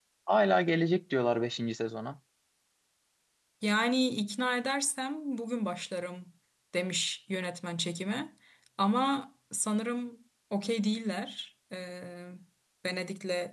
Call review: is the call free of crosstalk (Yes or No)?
Yes